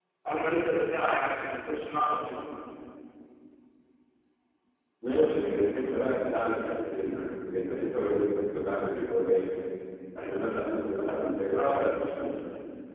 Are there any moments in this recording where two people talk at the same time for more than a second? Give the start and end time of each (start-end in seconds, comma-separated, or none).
none